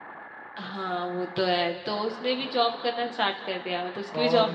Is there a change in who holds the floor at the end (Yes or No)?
Yes